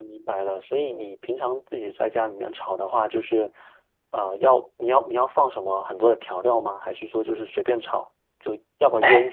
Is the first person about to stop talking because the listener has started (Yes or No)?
Yes